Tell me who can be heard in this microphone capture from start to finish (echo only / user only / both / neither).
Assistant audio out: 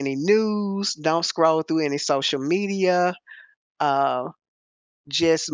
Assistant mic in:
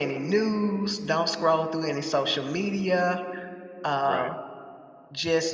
both